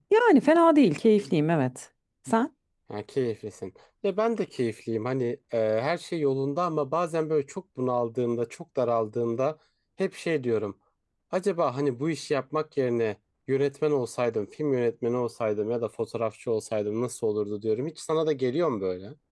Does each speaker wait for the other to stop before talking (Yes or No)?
Yes